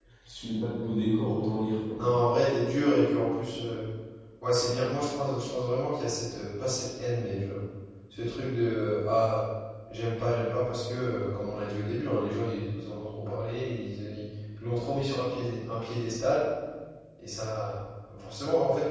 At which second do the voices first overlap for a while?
none

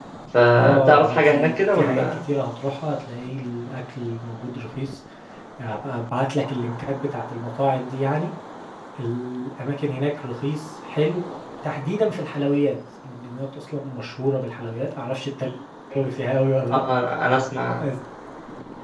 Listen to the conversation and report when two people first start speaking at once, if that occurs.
0.5 s

